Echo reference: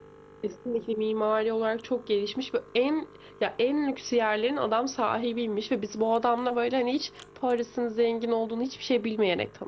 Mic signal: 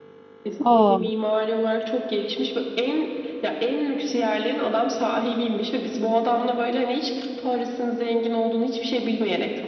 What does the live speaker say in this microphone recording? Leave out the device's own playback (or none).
Aa,